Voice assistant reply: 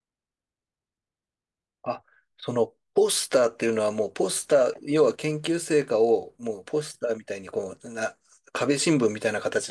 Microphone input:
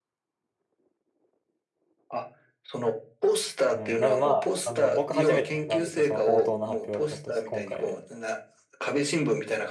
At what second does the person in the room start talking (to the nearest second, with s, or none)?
4 s